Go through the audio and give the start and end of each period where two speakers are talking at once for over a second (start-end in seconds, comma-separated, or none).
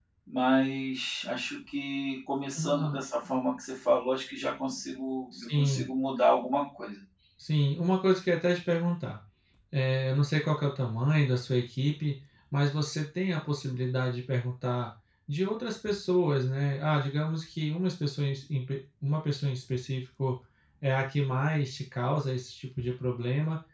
none